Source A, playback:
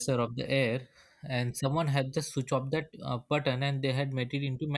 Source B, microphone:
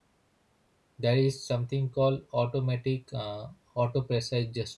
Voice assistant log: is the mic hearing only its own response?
No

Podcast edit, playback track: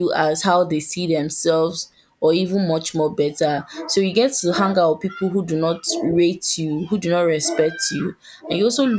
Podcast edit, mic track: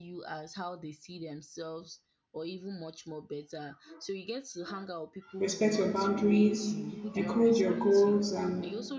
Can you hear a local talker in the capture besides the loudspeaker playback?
Yes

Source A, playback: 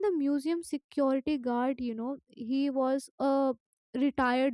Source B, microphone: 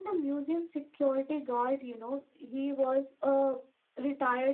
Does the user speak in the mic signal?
No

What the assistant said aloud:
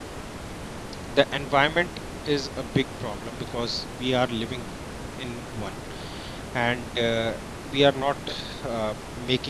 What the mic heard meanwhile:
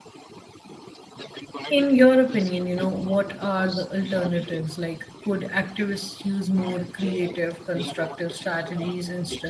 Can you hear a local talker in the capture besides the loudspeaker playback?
Yes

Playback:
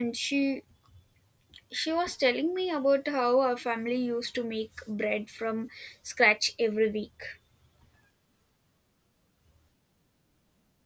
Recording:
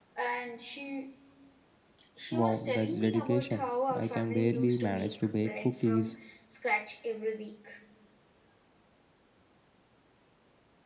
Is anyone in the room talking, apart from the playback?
Yes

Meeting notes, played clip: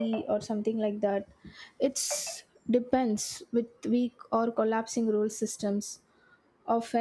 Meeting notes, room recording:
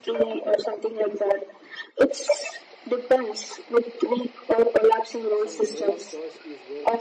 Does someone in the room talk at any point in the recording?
Yes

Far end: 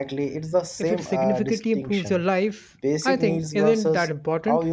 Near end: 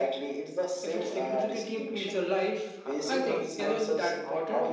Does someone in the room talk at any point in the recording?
Yes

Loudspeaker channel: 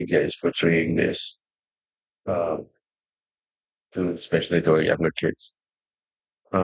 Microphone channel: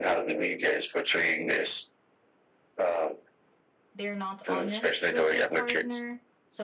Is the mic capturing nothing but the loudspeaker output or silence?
No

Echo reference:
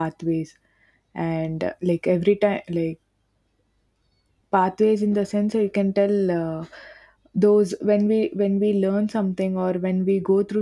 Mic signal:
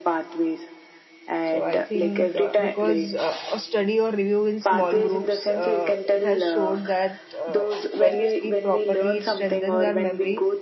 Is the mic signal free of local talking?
No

